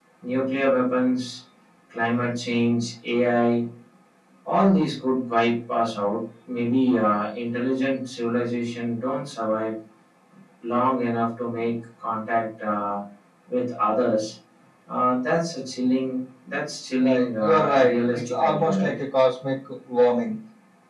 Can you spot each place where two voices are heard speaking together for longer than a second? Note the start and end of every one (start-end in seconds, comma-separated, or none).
17.0-18.9